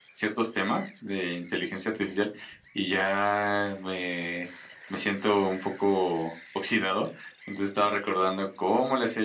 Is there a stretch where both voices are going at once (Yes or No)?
No